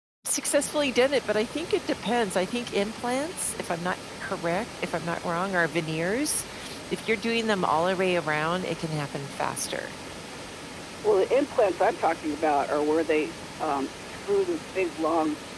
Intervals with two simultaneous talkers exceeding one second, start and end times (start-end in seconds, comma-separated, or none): none